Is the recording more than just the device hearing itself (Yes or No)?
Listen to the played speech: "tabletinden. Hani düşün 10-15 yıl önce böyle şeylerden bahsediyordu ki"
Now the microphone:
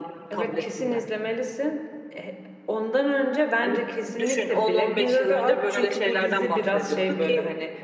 Yes